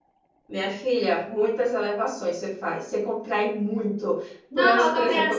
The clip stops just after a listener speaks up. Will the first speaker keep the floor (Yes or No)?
No